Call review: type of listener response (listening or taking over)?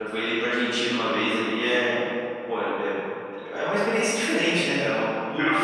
listening